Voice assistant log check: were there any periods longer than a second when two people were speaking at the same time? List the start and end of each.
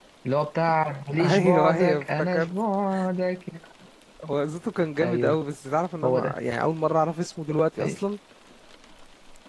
1.2-2.5

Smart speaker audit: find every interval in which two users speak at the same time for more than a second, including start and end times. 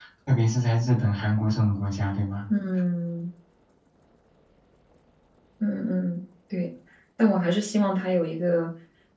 none

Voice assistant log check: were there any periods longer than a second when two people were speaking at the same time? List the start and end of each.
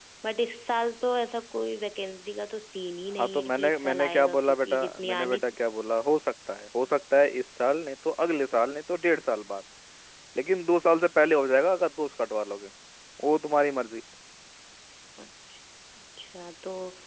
3.2-5.4

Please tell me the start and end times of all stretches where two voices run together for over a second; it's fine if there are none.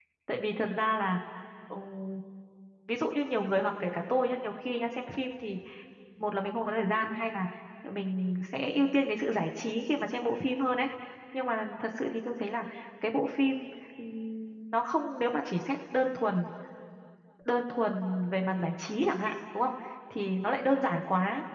none

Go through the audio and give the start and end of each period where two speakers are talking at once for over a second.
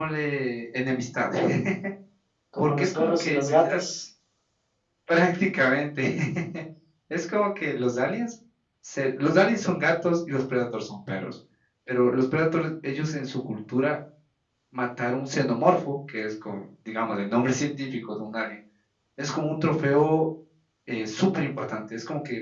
2.6-3.8

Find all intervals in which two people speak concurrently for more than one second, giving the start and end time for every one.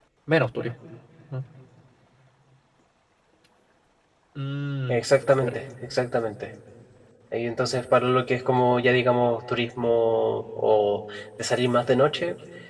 none

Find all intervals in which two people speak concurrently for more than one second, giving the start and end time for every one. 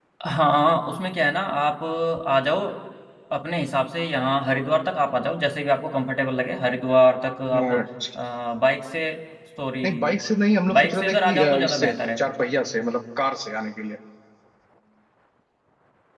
10.7-12.0

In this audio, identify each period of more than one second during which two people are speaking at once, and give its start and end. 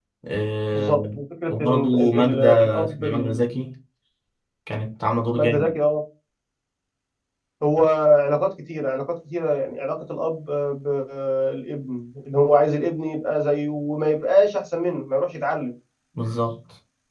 1.5-3.4

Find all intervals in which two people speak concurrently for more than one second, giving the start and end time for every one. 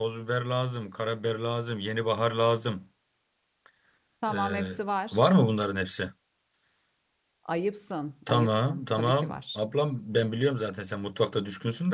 8.3-9.6

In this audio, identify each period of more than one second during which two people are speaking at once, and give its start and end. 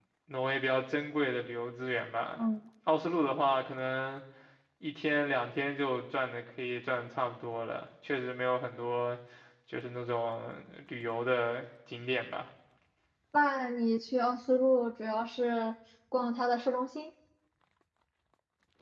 none

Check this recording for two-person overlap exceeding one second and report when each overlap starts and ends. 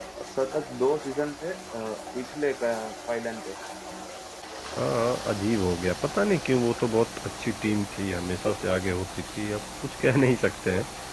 none

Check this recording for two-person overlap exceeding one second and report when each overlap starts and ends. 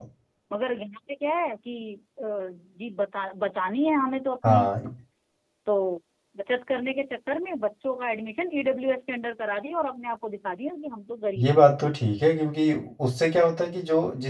none

